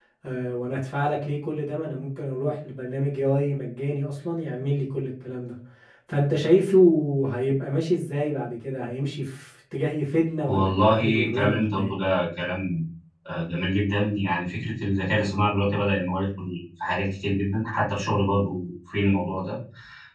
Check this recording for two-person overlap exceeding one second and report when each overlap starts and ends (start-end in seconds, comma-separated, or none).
10.5-11.9